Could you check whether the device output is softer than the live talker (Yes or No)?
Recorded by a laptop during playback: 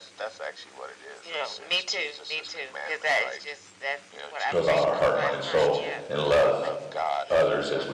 Yes